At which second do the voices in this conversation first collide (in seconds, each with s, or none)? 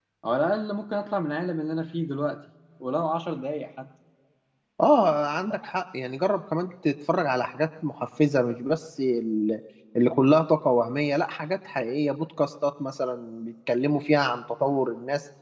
none